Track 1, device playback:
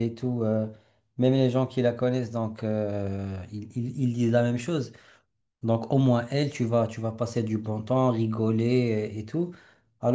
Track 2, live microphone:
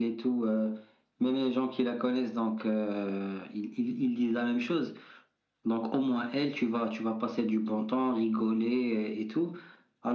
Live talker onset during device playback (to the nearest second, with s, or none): none